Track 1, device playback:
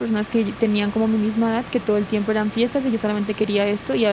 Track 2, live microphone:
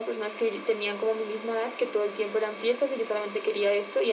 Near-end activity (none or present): none